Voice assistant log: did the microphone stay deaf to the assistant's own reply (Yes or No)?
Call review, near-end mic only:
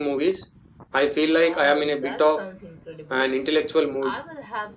No